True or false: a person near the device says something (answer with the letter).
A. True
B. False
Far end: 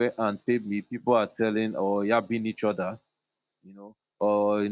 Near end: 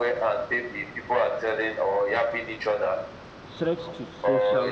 A